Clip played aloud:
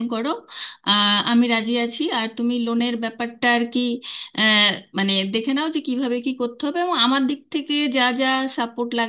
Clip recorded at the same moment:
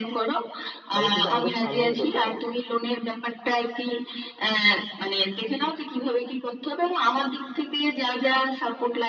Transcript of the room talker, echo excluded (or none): তাহলে কিন্তু আমাদের সামনে এগোতে হবে